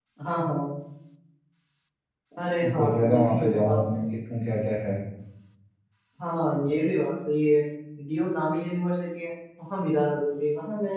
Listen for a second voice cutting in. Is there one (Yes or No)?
Yes